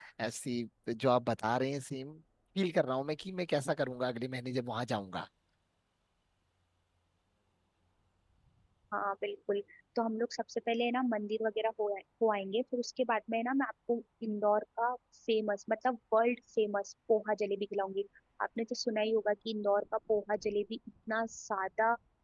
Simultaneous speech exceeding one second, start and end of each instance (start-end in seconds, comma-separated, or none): none